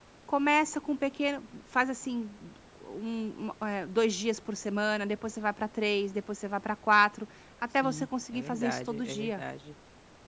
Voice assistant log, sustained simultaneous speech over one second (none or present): present